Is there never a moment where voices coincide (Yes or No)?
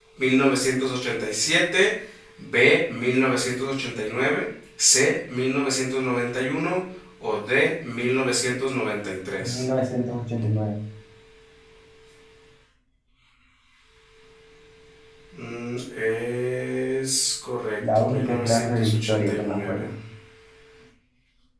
No